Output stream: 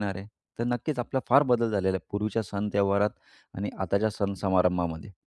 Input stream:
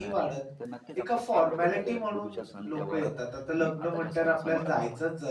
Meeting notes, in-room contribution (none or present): present